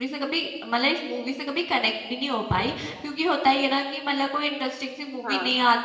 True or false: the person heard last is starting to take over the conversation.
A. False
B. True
A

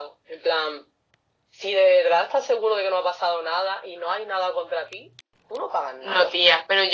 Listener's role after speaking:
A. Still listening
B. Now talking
B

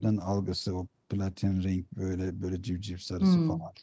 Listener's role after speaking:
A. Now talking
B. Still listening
A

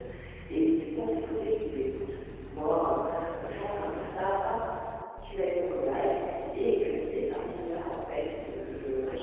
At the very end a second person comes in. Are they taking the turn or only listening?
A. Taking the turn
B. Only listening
B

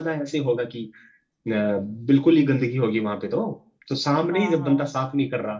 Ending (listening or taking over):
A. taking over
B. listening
B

